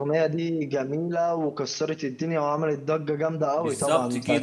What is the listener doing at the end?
taking over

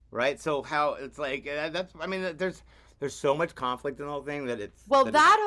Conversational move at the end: taking over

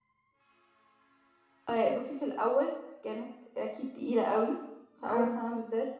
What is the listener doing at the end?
listening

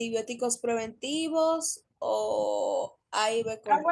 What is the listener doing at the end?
taking over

